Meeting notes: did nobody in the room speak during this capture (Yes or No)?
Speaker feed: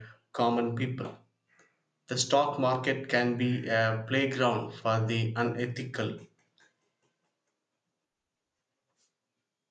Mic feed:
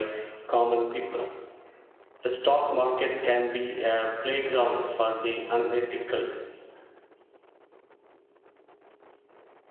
Yes